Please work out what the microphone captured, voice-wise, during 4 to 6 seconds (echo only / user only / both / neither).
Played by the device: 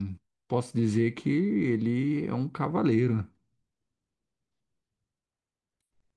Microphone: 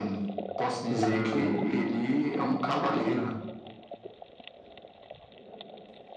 neither